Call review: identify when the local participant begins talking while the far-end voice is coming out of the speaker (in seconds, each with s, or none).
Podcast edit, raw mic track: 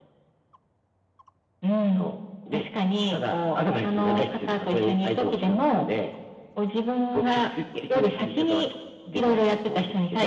none